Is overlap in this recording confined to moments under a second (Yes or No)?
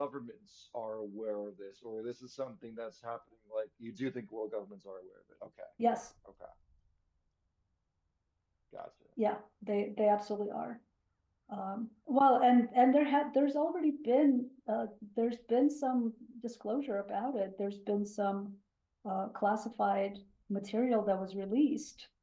Yes